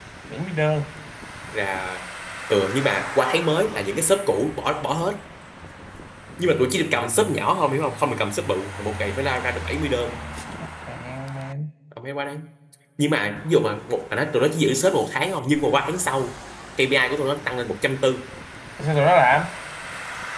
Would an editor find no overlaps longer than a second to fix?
Yes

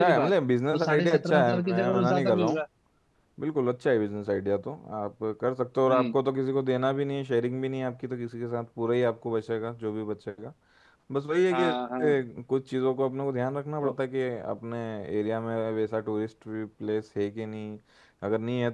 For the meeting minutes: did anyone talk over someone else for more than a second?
Yes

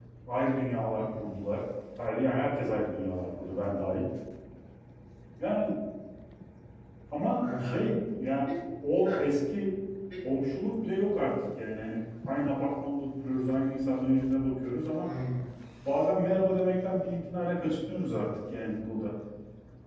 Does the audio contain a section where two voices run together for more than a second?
No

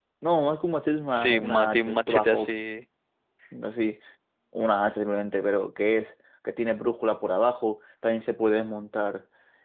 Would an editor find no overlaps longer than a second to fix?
No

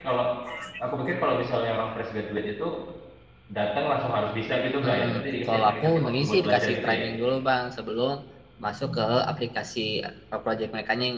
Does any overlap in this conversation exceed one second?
Yes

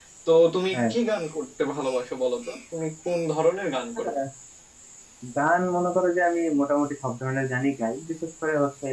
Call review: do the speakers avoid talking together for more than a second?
Yes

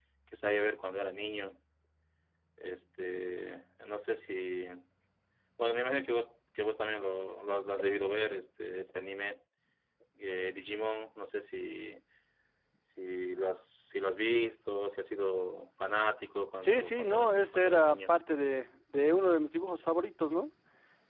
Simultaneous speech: Yes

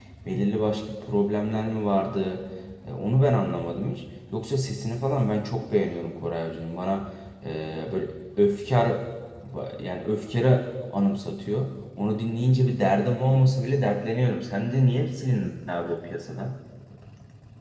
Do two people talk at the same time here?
No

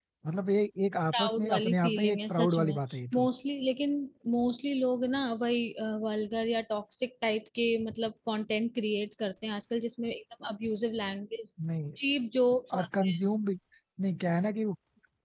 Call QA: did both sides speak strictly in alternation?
No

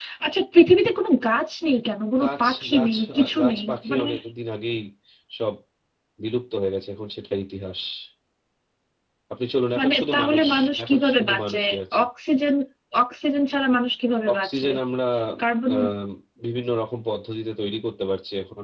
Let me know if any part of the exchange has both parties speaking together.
Yes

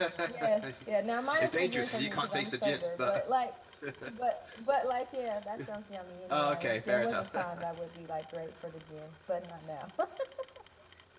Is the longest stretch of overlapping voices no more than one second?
No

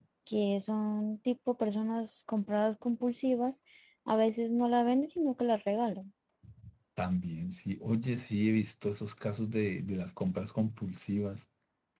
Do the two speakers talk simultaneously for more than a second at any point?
No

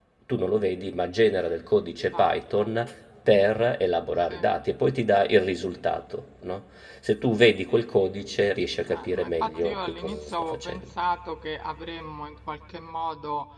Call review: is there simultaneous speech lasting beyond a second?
Yes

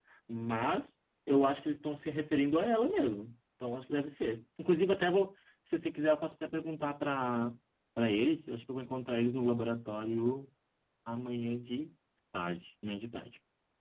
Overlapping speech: No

